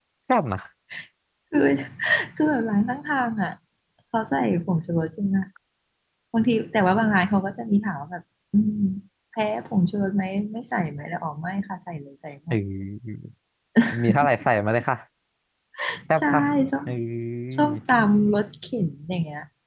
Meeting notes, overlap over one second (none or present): none